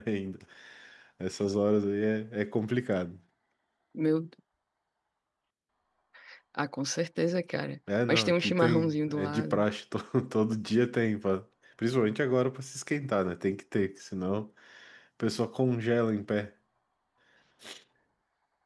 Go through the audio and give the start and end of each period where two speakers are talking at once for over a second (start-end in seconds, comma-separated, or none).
8.1-9.6